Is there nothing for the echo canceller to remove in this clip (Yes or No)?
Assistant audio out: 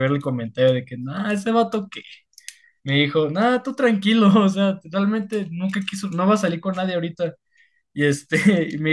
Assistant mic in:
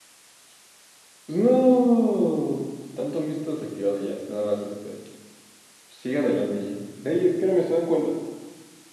Yes